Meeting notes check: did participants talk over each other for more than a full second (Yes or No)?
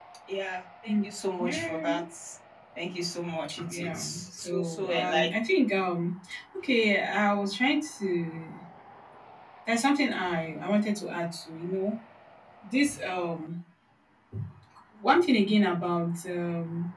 Yes